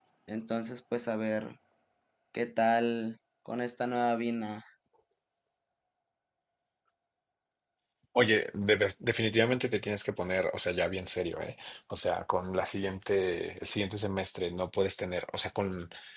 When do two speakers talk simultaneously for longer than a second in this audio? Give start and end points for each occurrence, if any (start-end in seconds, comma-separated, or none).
none